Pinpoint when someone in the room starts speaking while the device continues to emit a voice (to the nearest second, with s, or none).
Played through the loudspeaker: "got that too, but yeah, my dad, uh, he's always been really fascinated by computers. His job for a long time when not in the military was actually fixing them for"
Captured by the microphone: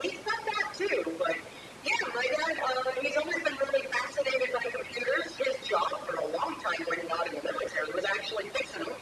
none